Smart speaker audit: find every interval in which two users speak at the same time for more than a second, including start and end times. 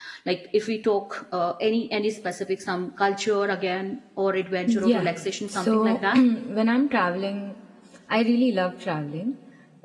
4.7-6.2

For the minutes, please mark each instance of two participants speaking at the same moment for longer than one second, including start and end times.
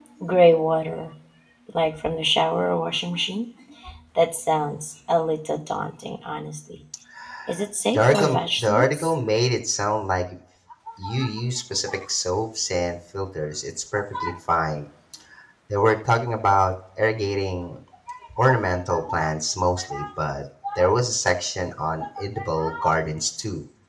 7.9-9.1

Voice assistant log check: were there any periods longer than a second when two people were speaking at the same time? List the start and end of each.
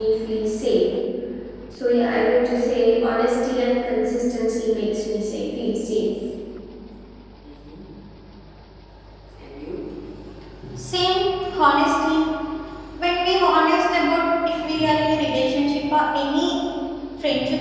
none

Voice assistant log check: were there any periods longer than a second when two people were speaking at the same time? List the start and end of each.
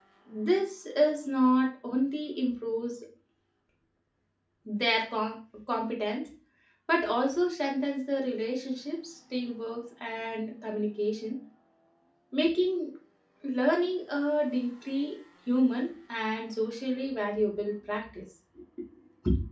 none

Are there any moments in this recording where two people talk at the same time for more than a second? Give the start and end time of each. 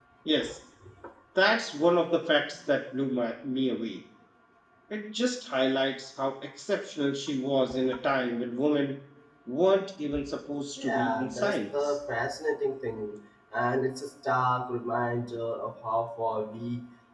10.8-12.0

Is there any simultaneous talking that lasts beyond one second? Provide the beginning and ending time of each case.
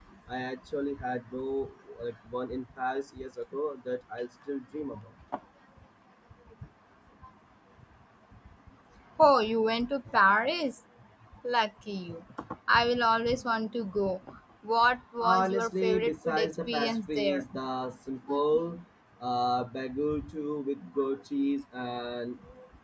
15.2-17.4

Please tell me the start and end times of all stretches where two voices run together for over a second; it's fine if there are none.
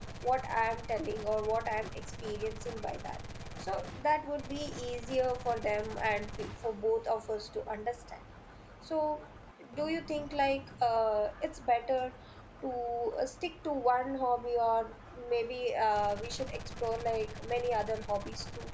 none

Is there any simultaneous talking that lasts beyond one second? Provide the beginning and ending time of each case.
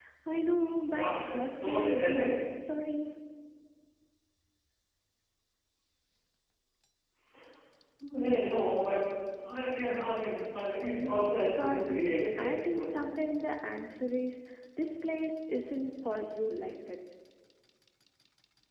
0.9-2.4, 10.8-12.9

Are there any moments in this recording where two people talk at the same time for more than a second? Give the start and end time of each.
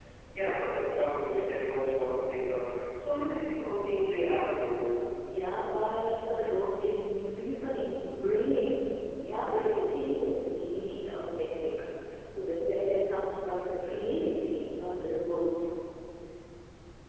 none

